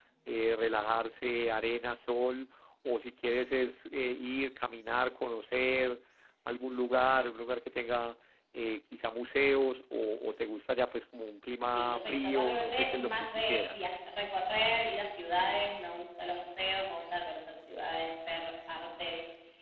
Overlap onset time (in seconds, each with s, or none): 11.7 s